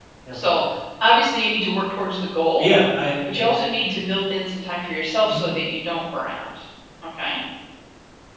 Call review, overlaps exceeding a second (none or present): none